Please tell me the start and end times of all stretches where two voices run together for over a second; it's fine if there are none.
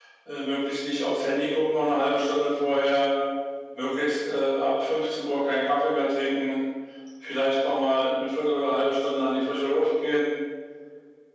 none

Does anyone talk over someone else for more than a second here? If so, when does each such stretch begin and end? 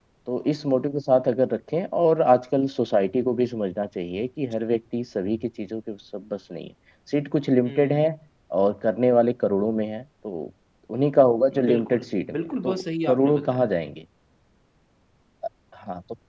12.4-13.7

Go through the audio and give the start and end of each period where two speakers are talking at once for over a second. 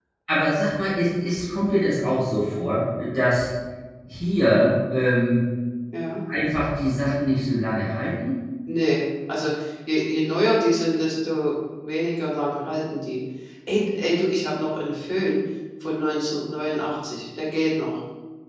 none

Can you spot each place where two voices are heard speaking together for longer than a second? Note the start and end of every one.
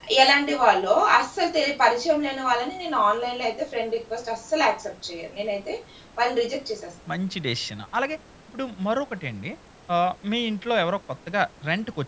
none

